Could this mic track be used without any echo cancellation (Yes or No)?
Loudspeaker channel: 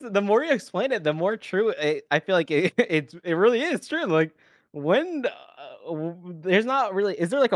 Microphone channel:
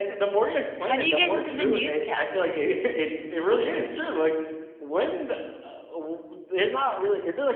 No